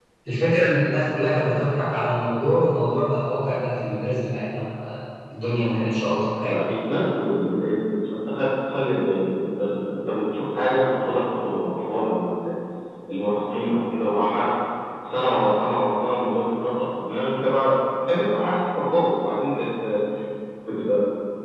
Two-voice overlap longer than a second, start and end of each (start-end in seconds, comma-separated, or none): none